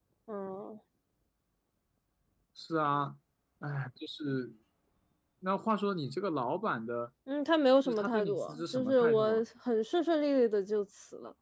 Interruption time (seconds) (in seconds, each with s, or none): 7.8 s